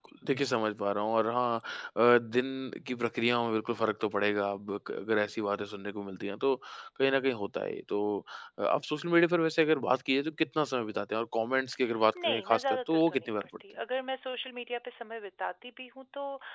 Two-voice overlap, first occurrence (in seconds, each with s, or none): 12.2 s